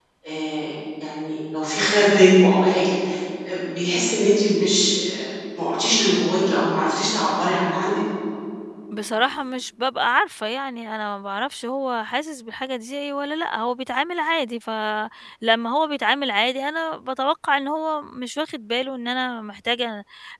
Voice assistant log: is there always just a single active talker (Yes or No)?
Yes